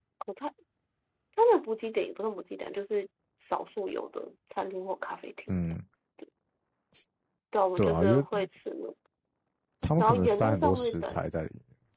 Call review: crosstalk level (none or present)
present